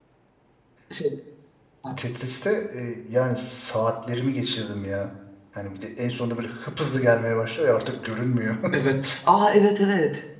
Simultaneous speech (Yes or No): No